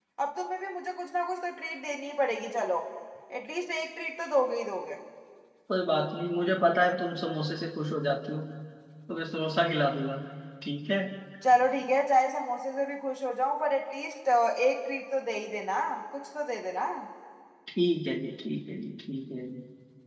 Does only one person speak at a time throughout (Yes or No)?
Yes